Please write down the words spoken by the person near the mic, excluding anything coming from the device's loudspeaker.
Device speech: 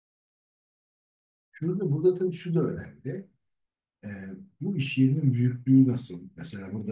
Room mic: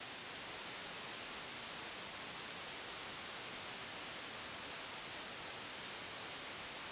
none

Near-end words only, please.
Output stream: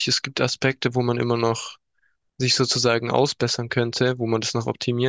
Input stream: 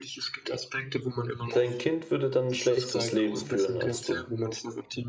dein Kind würde dann ein schlechteres Leben führen als du.

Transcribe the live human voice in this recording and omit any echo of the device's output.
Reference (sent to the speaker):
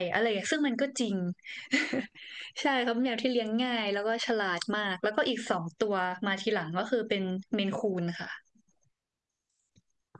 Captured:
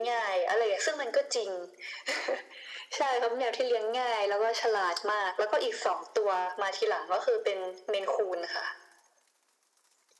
none

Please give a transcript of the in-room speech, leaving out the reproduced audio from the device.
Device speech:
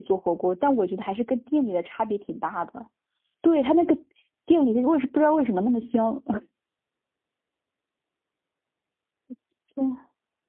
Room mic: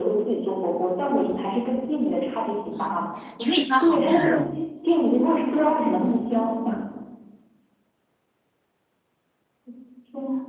嗯，你可以挑好一点的肉。

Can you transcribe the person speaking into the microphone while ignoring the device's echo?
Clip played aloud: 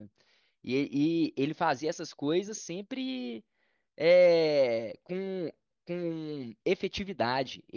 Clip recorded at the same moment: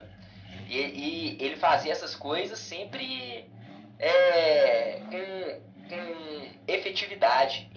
none

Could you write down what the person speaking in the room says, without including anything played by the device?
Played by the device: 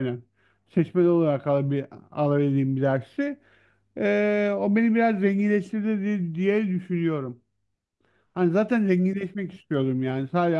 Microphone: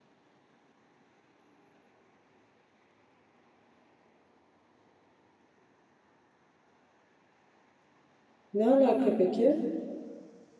Ne alaka peki?

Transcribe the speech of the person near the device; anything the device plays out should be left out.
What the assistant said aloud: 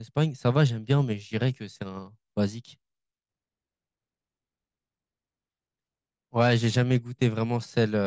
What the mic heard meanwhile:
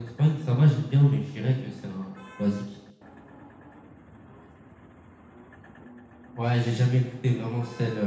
none

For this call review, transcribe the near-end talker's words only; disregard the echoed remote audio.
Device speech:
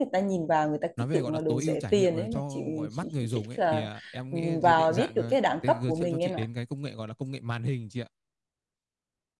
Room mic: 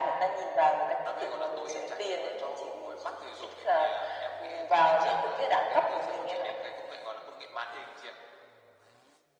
none

